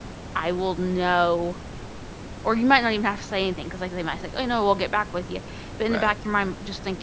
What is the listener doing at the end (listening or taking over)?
listening